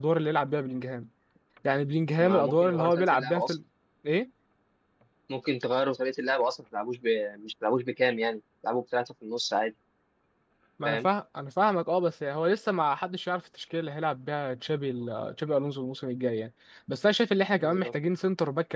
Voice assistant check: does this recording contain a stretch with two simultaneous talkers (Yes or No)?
Yes